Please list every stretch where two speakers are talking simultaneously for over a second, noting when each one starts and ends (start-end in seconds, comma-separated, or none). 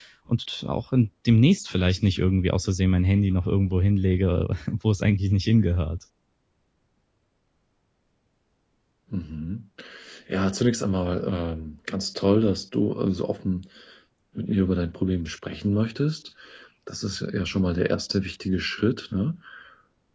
none